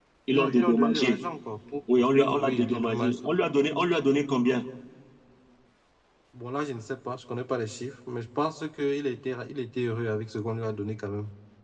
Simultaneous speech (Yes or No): Yes